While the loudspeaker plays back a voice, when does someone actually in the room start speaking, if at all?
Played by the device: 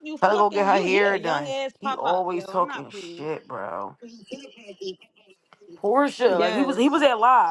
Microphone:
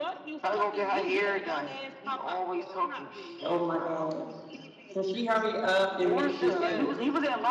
3.4 s

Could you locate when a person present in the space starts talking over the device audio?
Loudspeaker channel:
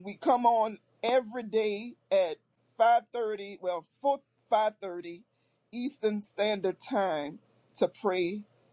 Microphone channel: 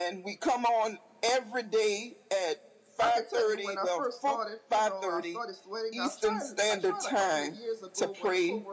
3.0 s

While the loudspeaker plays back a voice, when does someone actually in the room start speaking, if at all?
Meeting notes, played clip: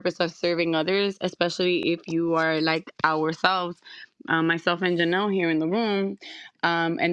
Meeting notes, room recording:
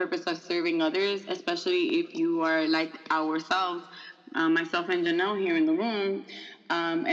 none

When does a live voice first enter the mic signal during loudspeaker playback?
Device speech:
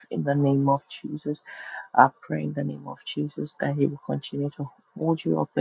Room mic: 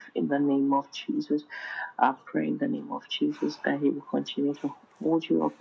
none

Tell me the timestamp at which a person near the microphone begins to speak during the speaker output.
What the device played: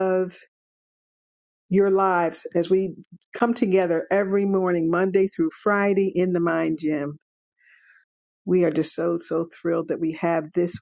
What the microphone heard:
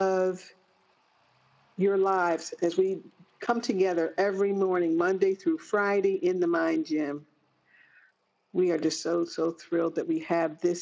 none

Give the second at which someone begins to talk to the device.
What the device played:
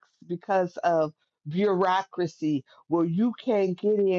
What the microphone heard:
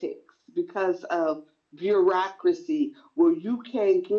none

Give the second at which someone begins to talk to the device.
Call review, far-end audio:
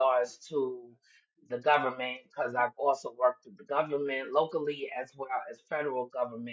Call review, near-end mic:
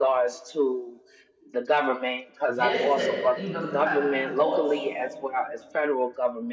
2.5 s

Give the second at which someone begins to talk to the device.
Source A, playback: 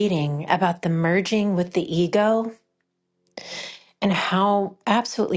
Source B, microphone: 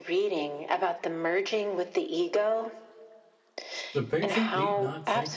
3.9 s

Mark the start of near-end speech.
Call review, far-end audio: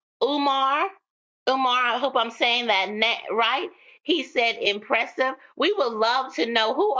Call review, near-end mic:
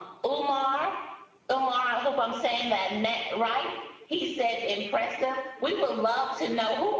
none

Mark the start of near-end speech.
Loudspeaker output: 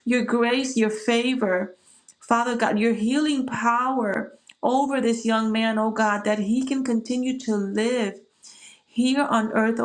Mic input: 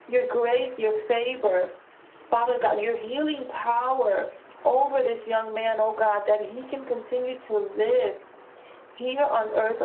none

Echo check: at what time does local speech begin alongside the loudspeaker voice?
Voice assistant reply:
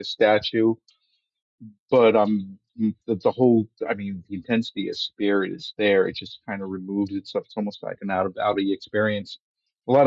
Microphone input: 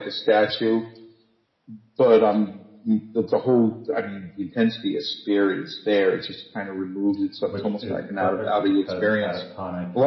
7.5 s

